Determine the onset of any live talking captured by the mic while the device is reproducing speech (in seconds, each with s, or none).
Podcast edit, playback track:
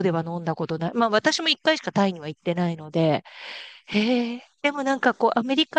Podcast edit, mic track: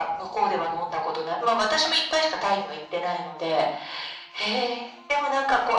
none